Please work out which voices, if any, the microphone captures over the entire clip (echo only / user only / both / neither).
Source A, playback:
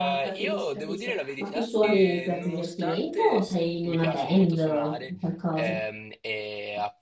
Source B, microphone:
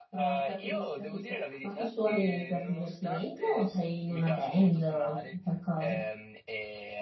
echo only